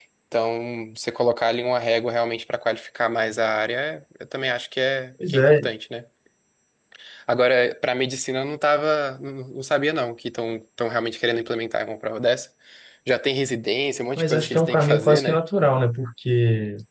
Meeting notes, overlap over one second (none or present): present